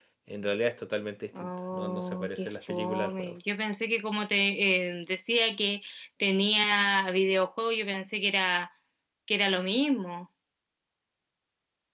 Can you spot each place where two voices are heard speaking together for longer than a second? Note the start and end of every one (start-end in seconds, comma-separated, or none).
1.4-3.3